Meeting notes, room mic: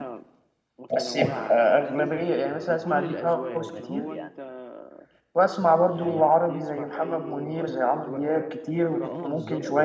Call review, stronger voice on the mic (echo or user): user